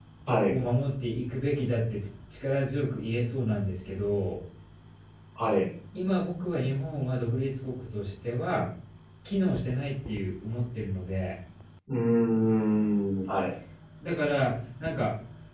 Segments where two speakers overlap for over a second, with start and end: none

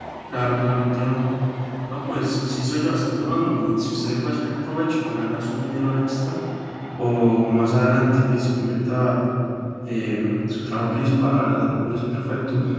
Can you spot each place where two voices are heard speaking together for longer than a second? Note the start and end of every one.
none

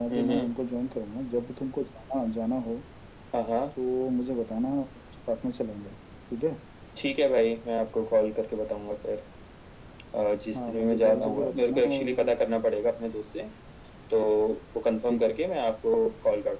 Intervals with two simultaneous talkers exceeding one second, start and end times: 10.6-12.4

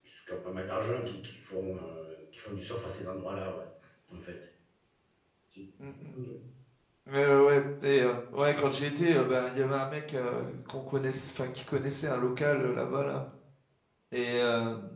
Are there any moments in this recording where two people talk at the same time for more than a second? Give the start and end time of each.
none

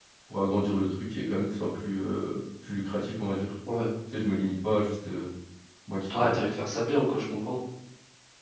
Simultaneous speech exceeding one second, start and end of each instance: none

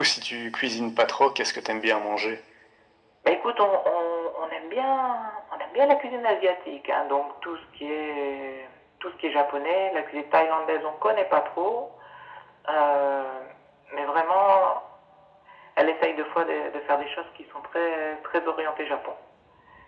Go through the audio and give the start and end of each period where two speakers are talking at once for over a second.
none

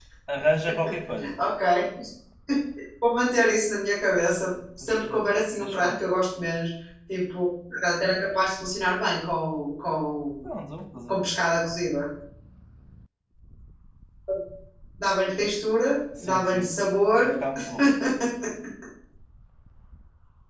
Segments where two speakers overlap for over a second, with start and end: 4.8-6.1

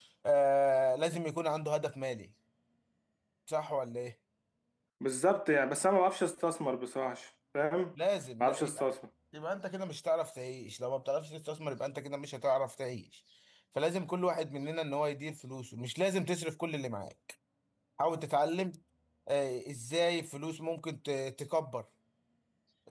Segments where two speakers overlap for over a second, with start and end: none

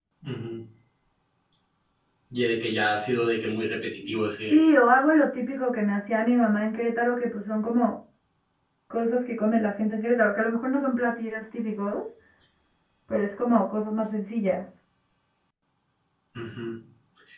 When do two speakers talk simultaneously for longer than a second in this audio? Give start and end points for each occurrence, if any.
none

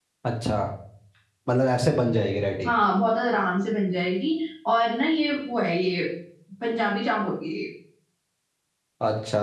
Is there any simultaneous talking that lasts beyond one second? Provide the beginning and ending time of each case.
none

